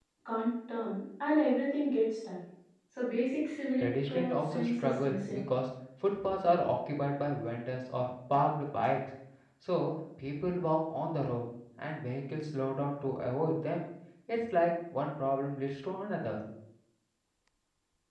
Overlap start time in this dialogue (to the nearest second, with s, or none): 4 s